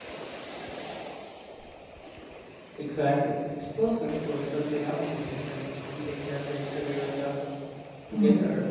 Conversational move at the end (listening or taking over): taking over